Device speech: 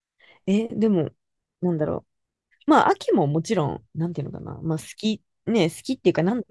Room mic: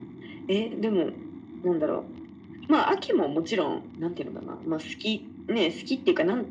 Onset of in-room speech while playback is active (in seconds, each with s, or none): none